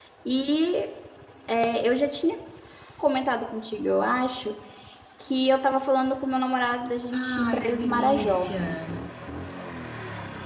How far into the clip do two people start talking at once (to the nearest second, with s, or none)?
7 s